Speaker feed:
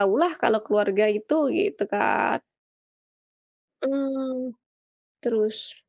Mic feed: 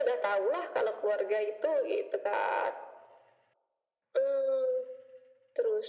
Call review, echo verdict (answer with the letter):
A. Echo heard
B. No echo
A